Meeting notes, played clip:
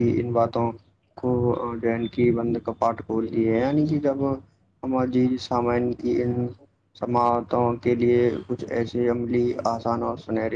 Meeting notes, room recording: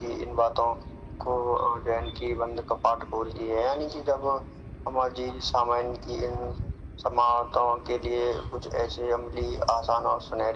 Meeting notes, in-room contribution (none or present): none